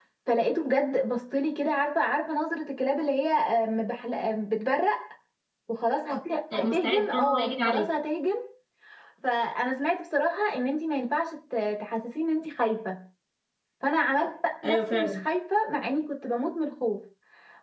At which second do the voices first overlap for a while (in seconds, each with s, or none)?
6.6 s